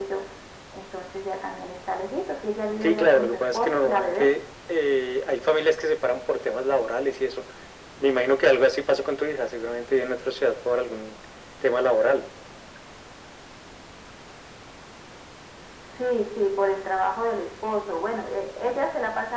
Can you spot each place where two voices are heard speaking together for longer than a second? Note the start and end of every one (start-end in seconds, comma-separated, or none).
2.8-4.3